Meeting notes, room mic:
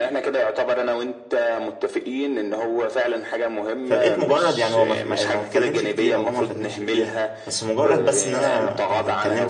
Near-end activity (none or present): present